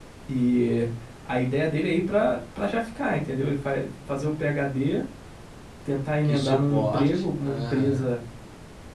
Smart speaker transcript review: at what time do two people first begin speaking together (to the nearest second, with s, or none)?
6 s